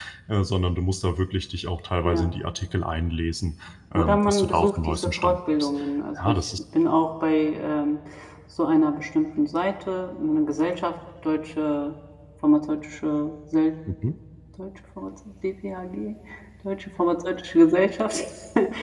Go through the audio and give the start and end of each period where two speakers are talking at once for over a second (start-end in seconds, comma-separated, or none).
3.9-5.7